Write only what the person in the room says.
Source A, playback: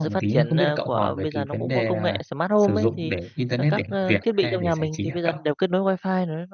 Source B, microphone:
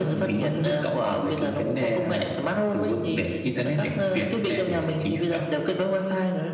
none

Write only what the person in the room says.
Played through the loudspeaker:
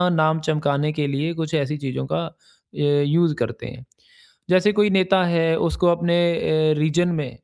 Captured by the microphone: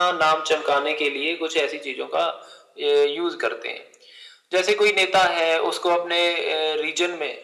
none

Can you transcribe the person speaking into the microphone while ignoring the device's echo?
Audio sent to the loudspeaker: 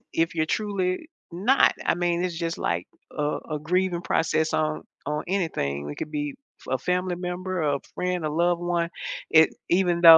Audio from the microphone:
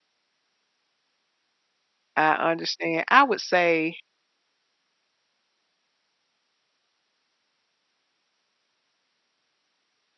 I understand. I would say,

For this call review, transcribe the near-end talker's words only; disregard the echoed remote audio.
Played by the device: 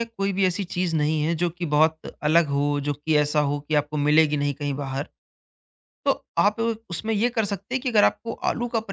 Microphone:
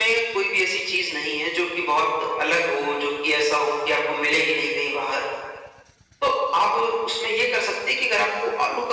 none

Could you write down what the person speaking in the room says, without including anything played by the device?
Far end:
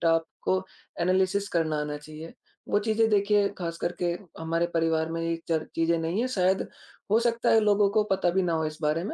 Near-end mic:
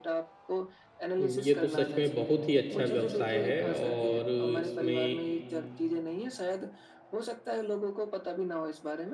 उम, ये तो सच में बहुत ही अच्छा व्यवसाय है और इसमें

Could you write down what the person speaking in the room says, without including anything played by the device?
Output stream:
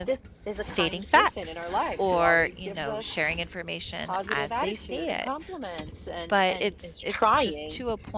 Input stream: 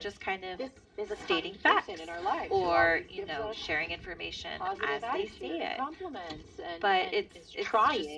none

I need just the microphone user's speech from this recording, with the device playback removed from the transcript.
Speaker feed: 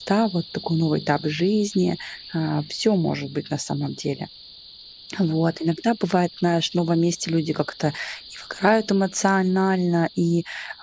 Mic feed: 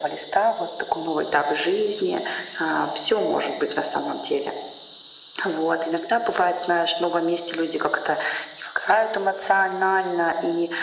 none

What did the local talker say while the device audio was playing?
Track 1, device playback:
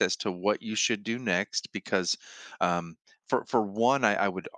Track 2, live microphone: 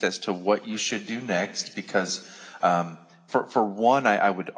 none

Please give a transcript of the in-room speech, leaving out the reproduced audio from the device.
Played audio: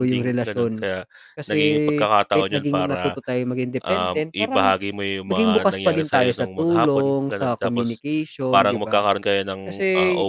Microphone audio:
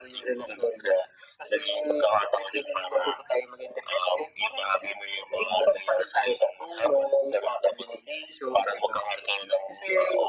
none

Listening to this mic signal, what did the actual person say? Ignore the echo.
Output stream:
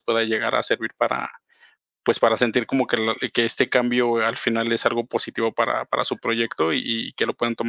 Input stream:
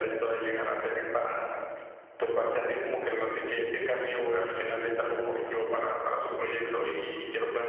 none

